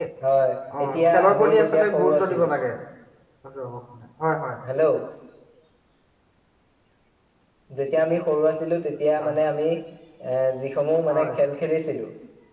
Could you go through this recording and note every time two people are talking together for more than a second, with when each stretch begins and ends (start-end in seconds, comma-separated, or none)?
0.8-2.5